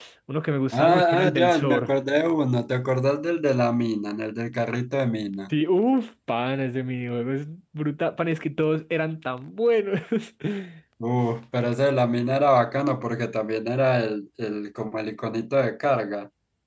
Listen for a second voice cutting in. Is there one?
Yes, from 0.7 s

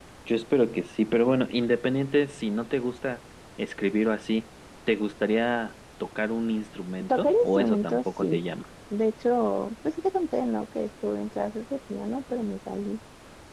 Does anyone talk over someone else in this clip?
Yes, from 7.1 s

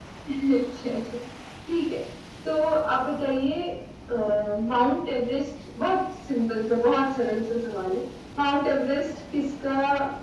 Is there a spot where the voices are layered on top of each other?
No

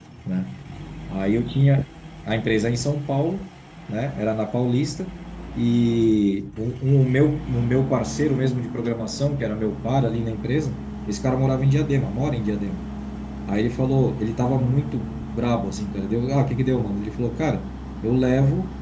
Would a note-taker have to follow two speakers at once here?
No

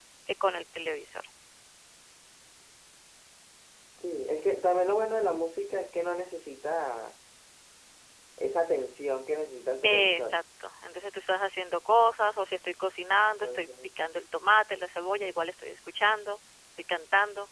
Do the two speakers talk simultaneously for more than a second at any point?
No

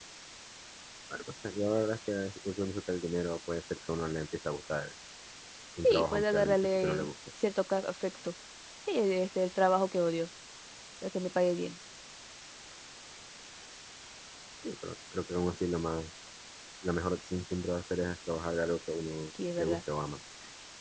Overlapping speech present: Yes, from 5.8 s

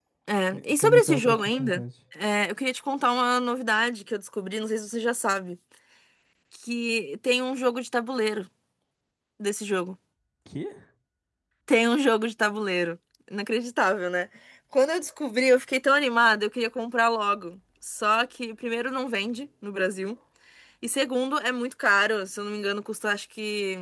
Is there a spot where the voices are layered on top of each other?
Yes, from 0.5 s

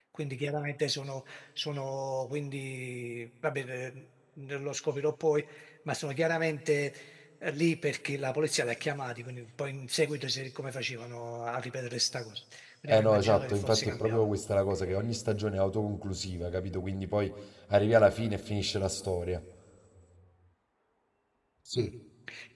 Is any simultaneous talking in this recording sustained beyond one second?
Yes, from 12.9 s

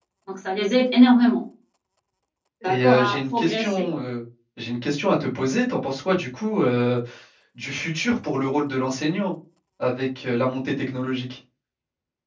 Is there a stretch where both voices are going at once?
Yes, from 2.6 s

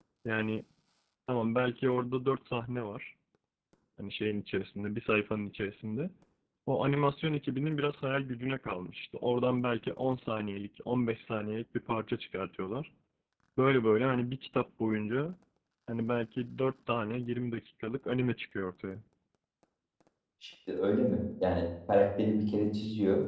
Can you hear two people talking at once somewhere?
No

